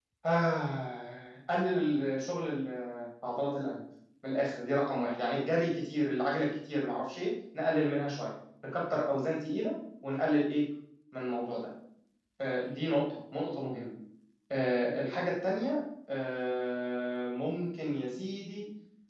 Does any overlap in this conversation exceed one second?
No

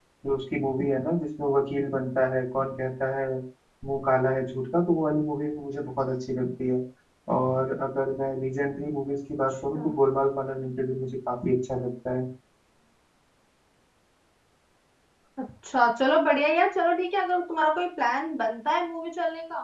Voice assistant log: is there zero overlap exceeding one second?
Yes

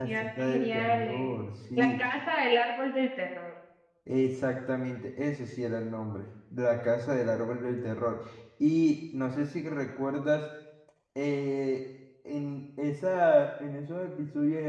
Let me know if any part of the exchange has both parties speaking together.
Yes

